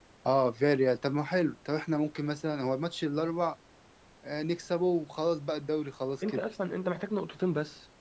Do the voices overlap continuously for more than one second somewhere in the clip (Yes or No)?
No